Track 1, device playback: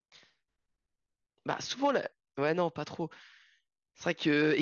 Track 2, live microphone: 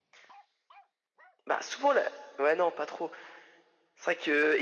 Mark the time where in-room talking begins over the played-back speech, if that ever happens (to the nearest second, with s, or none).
none